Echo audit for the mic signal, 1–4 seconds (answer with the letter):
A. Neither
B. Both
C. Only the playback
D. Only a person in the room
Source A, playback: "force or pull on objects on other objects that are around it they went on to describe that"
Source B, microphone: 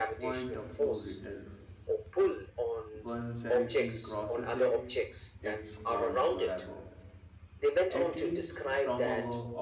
B